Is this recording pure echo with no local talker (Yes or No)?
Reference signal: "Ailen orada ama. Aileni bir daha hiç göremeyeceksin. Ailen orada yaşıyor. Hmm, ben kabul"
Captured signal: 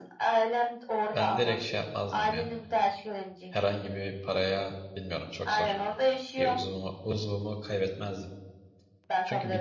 No